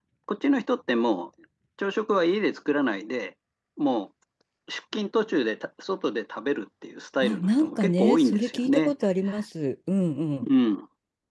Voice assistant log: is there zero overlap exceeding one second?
No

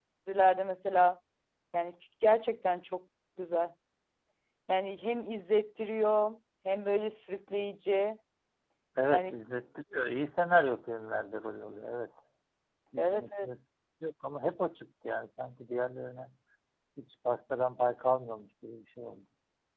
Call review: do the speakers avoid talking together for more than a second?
Yes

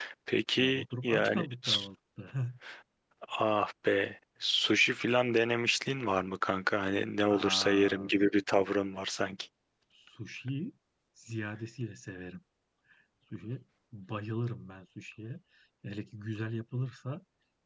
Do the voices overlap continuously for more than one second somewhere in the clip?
Yes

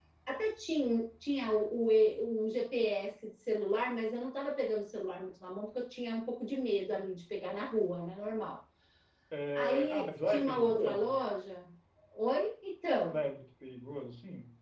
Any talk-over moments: Yes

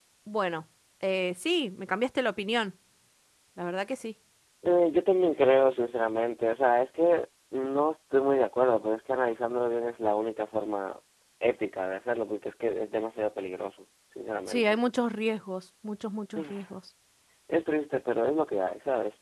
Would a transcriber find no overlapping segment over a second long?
Yes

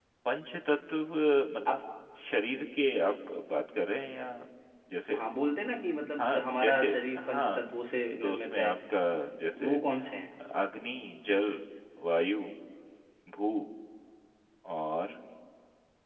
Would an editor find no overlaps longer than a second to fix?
No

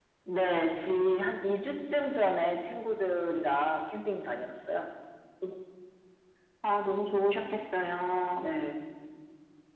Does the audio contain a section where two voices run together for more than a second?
No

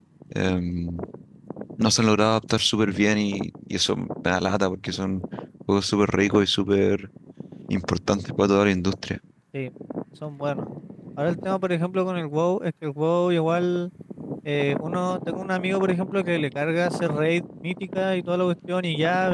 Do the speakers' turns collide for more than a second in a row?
No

